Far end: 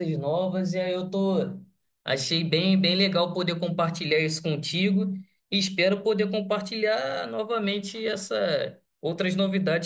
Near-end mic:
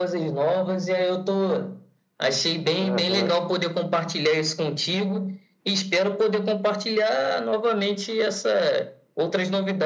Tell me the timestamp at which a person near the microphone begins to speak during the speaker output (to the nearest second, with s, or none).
3 s